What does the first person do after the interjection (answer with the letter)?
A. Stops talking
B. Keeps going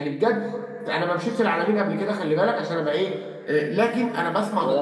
B